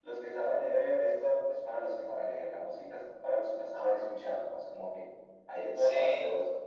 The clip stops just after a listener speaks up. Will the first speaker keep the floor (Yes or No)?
Yes